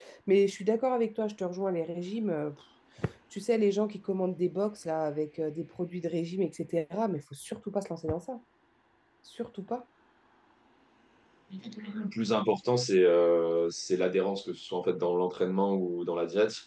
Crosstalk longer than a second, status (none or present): none